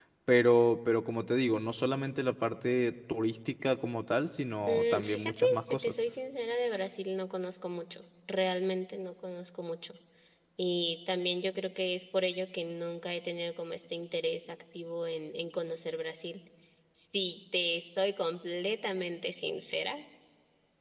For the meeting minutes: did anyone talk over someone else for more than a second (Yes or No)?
Yes